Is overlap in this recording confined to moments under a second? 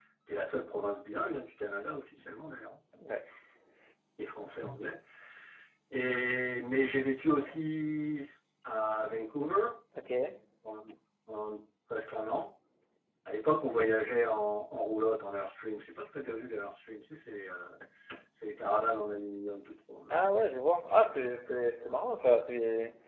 Yes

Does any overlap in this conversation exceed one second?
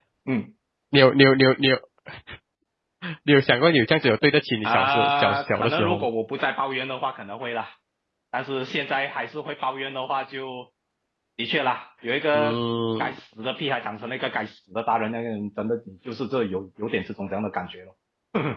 Yes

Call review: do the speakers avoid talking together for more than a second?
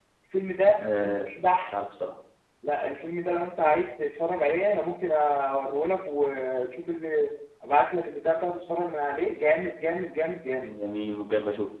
Yes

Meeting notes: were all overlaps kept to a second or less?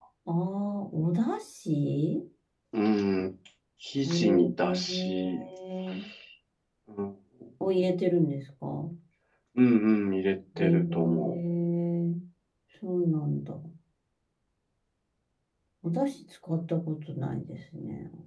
No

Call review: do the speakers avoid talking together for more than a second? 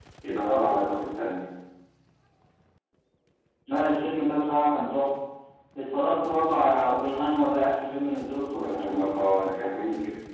Yes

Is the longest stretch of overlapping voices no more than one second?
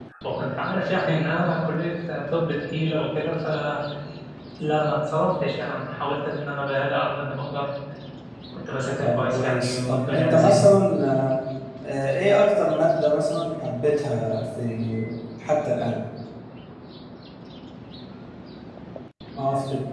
No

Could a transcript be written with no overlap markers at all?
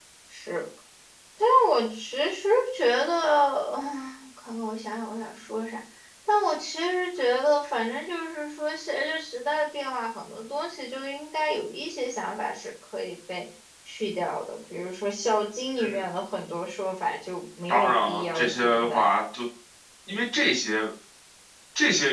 No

